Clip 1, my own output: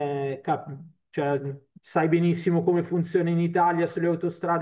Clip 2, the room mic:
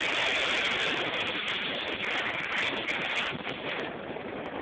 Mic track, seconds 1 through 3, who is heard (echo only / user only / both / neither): neither